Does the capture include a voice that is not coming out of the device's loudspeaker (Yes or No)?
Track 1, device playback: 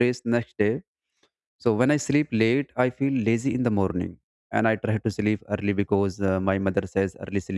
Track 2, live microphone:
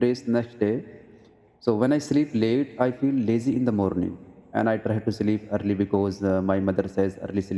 No